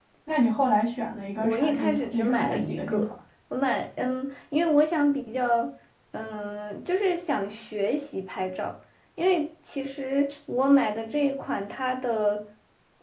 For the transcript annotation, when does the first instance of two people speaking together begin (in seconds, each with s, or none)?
1.4 s